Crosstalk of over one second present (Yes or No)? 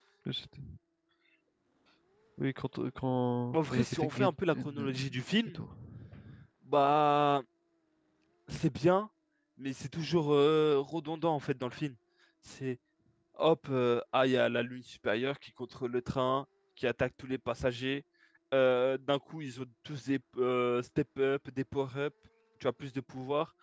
Yes